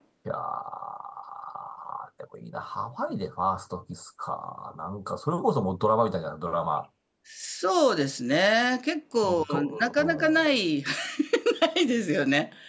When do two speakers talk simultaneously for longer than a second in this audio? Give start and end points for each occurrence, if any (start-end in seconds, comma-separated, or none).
9.2-10.4